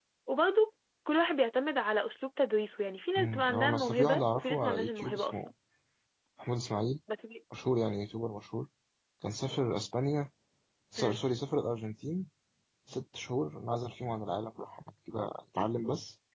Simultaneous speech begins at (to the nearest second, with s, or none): 3 s